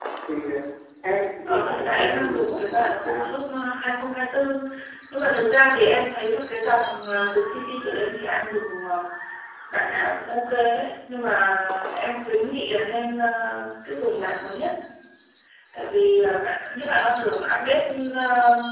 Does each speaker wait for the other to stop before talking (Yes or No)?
No